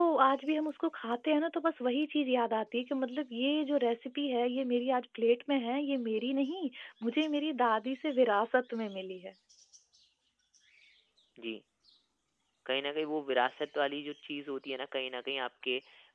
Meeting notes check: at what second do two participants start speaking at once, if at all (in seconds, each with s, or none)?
none